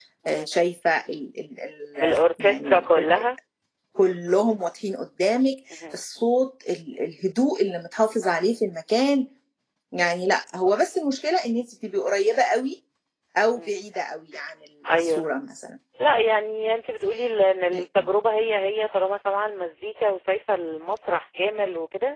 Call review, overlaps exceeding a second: present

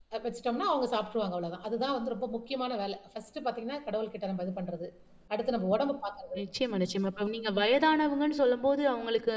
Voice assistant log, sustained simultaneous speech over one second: none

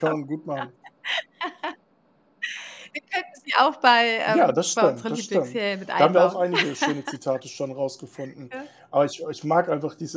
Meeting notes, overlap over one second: present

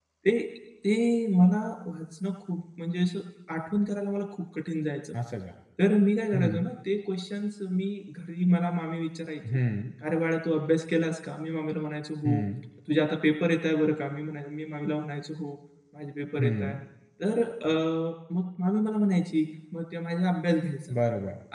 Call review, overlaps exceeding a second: none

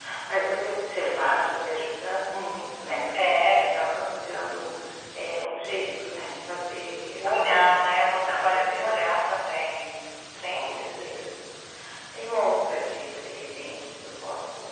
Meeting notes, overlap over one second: present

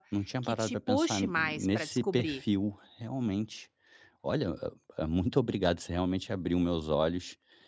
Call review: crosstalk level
present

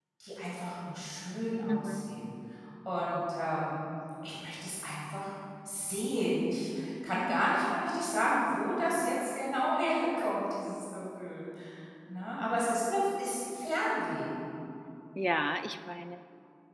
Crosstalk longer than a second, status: none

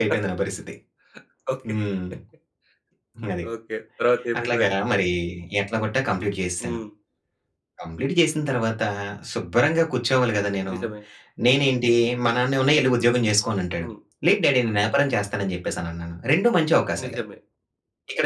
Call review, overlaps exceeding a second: none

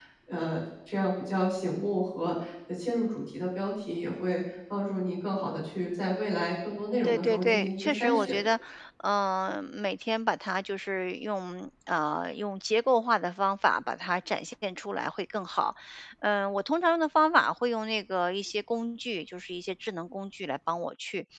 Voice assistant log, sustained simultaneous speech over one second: present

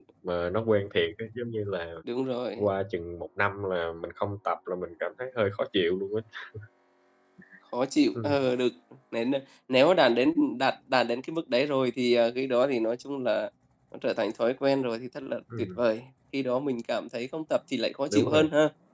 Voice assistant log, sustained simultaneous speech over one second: none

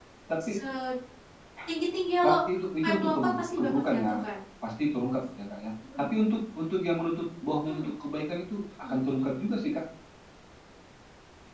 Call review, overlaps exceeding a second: present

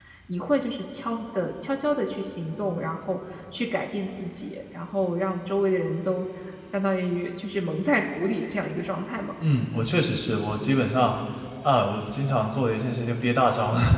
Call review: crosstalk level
none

